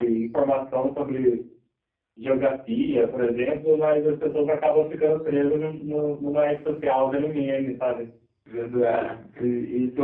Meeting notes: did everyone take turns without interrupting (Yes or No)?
Yes